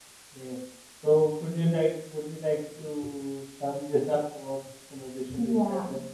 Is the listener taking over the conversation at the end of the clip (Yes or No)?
Yes